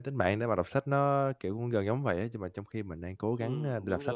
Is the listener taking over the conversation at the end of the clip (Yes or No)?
Yes